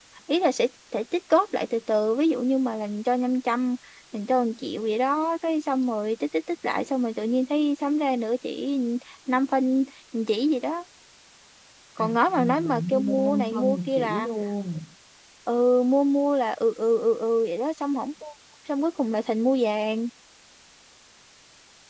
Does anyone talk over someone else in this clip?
Yes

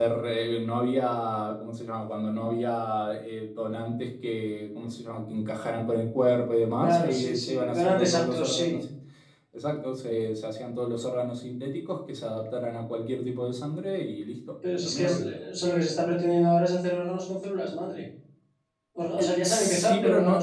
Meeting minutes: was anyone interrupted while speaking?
Yes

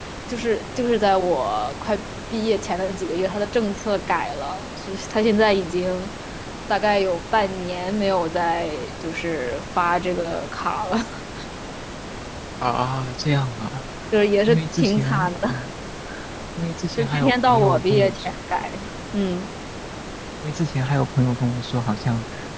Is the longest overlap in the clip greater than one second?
Yes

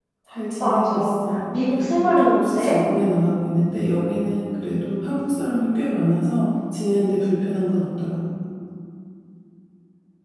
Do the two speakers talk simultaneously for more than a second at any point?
Yes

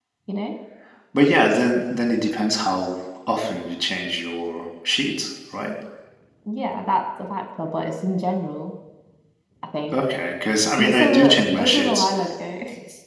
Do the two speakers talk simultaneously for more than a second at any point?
Yes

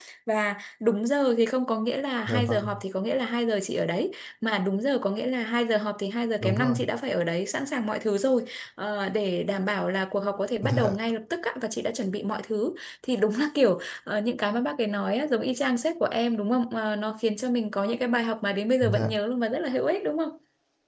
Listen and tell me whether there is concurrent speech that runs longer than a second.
No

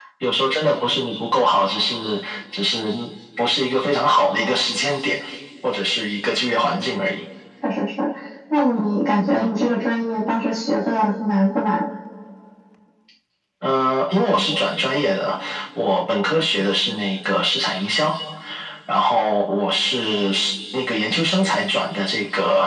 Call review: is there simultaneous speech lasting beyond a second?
No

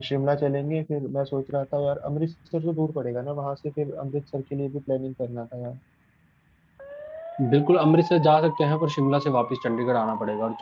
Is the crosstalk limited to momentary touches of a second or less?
Yes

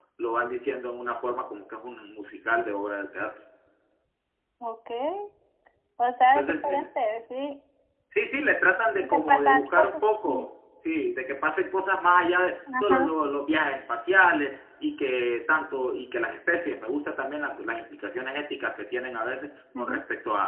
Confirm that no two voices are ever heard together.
No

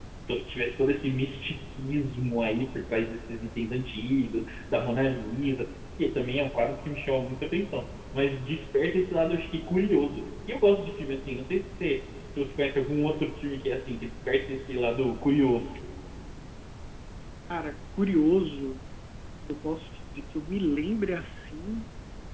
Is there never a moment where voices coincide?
Yes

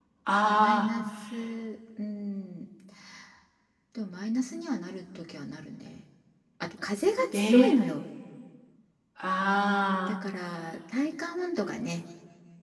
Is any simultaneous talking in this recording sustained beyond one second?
No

